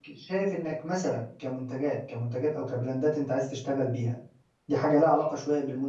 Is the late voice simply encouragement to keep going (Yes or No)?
Yes